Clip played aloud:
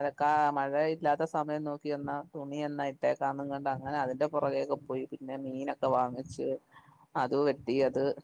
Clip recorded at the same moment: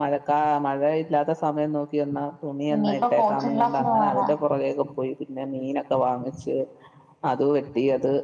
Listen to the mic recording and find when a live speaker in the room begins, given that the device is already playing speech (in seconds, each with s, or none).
2.7 s